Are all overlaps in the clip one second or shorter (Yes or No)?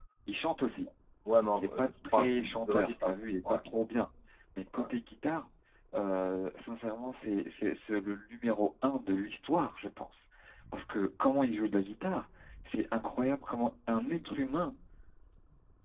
No